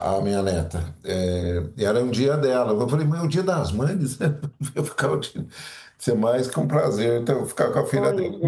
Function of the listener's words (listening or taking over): listening